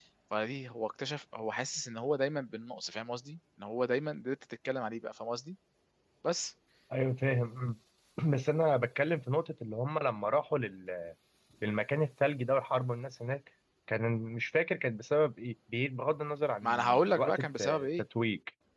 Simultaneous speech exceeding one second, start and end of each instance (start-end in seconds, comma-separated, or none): 16.6-17.9